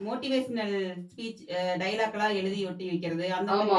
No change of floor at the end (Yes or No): No